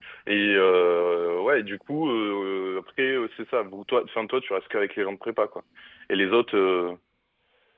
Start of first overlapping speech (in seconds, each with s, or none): none